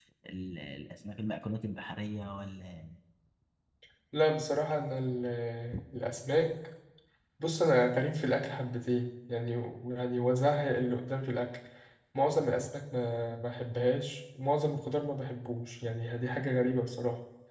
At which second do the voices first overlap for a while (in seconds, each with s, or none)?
none